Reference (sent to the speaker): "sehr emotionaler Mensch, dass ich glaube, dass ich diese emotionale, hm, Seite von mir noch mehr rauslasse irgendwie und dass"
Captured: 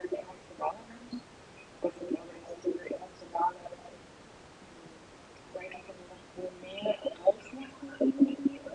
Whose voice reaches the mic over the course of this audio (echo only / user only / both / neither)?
echo only